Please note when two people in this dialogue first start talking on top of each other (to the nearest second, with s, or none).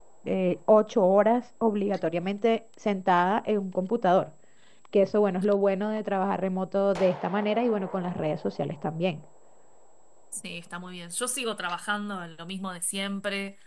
none